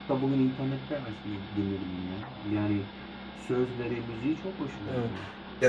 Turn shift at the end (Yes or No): Yes